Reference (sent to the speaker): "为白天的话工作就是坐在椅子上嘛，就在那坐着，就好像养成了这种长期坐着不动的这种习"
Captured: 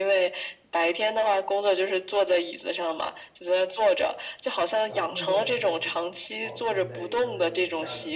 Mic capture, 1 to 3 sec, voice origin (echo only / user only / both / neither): echo only